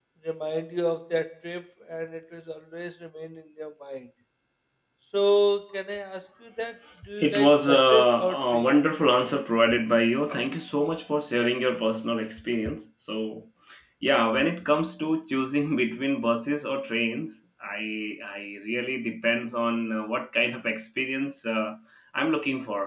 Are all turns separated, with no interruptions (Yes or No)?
No